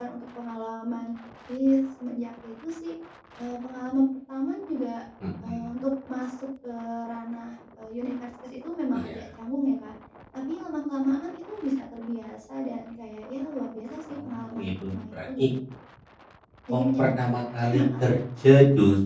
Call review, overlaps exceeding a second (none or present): present